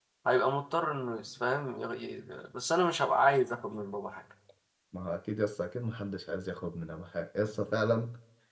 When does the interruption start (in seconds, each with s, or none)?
none